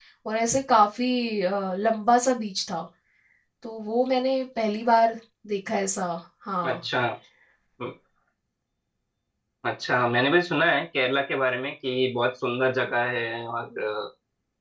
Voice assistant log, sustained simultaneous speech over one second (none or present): none